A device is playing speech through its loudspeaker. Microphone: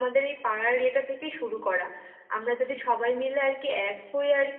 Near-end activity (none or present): present